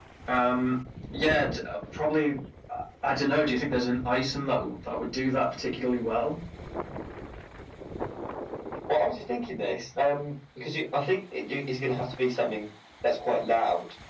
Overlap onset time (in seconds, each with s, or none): none